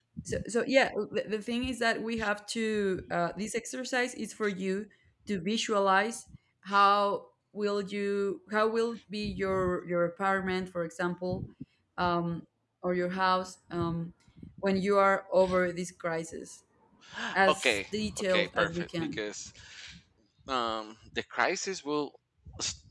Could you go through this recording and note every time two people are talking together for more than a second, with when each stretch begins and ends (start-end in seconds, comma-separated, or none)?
17.5-19.2